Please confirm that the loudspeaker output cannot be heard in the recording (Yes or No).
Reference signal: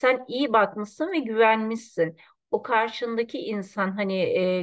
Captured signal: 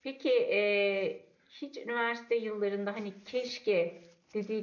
Yes